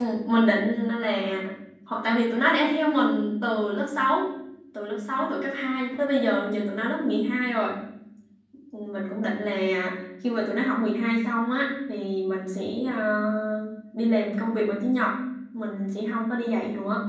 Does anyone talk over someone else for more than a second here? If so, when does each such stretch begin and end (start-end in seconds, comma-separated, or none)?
none